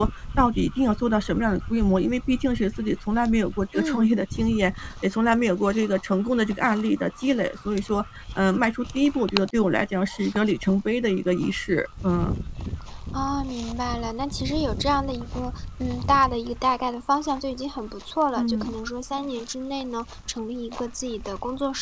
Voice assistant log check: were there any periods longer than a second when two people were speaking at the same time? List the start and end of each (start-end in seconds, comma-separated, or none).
none